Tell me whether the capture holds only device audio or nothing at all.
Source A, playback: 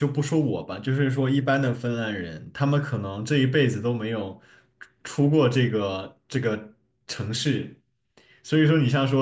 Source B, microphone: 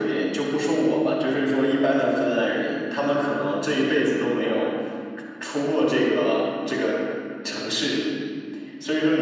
Yes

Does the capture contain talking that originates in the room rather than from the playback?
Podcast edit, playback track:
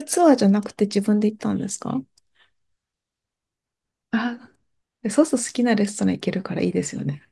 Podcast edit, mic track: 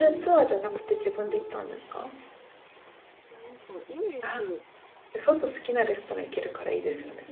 Yes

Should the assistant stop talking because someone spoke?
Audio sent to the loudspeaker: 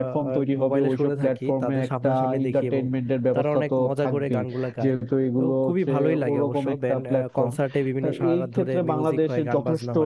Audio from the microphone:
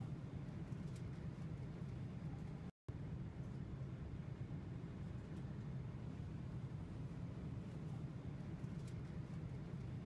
No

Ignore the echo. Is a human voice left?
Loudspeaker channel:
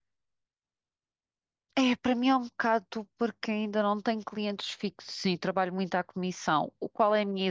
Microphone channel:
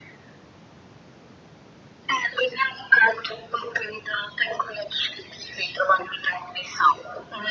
No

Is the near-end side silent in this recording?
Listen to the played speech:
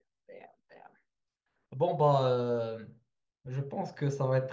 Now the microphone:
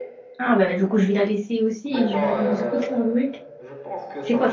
No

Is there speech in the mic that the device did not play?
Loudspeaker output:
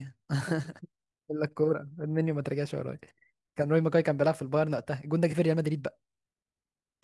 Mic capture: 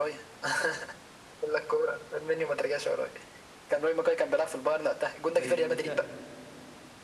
Yes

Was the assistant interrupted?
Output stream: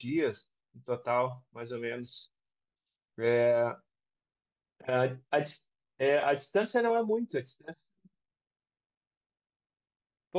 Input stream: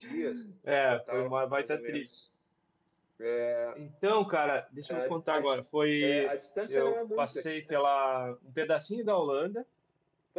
Yes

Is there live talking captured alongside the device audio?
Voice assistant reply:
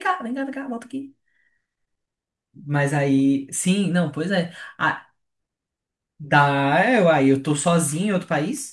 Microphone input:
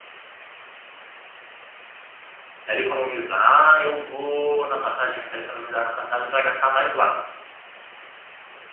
Yes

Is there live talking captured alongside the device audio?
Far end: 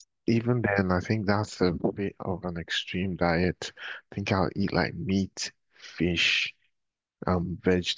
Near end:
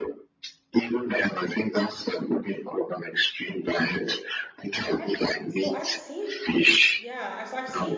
Yes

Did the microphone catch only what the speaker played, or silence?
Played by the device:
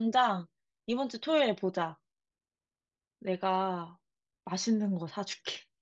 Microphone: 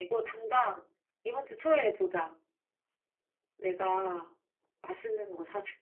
Yes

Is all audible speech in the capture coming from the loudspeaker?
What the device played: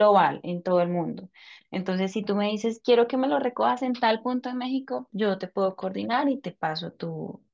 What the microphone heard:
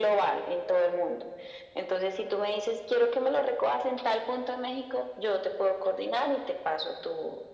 Yes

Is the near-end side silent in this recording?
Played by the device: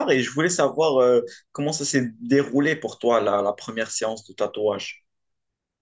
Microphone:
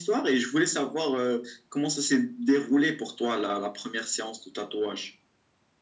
Yes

